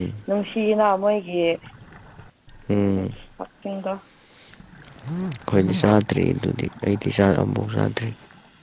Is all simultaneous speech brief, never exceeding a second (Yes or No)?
Yes